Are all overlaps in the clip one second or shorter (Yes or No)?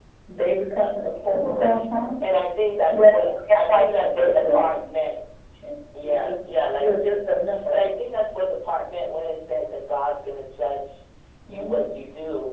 No